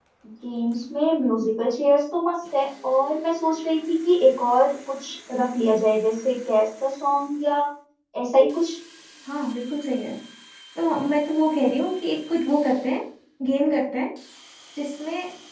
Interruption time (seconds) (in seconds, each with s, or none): none